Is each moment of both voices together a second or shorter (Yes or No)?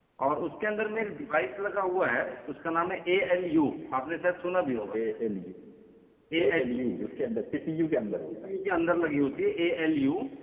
Yes